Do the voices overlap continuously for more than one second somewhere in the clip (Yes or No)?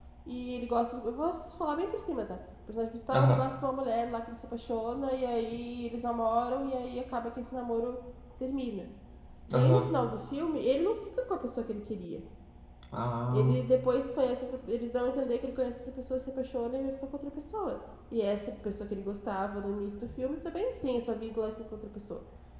No